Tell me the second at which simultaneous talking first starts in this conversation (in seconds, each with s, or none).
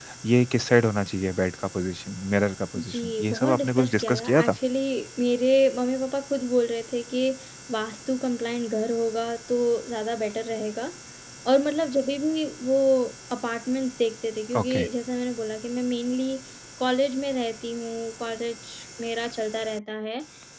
2.8 s